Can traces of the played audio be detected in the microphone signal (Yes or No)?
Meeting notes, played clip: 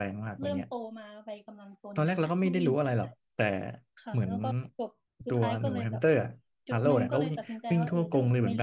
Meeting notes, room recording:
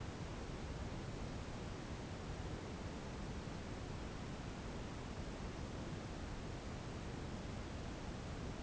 No